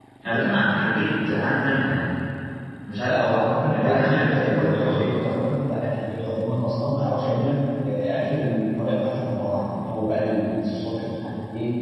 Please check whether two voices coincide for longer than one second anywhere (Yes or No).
Yes